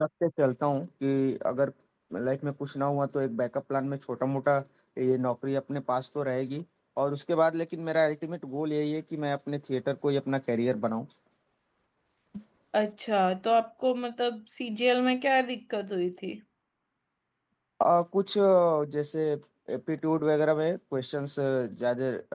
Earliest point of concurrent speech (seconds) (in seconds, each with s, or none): none